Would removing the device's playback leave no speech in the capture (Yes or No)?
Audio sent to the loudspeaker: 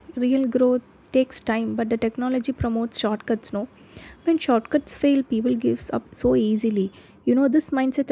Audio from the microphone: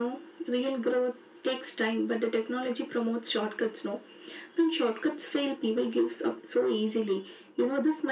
Yes